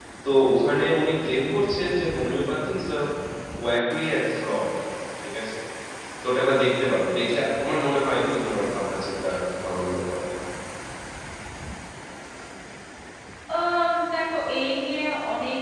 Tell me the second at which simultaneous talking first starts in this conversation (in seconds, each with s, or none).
none